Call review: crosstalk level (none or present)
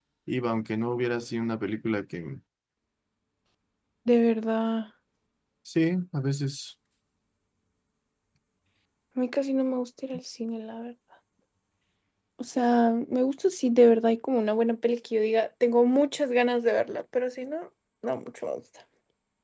none